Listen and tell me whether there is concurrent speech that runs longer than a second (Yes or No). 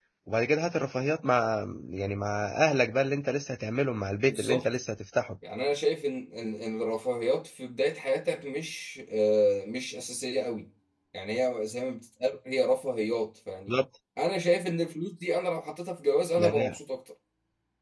No